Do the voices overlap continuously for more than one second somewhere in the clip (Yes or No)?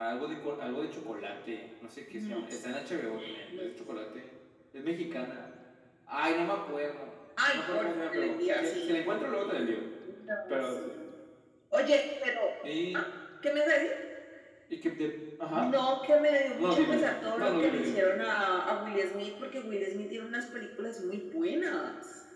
Yes